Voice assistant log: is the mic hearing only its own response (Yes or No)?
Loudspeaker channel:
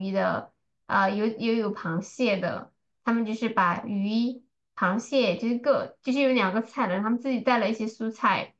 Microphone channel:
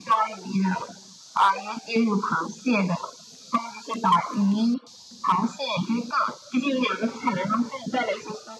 Yes